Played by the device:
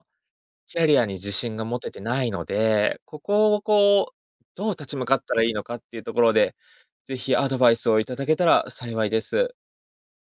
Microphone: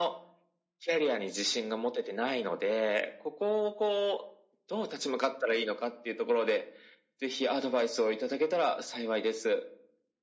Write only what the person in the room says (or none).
none